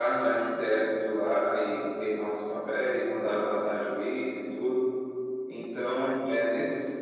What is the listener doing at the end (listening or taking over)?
listening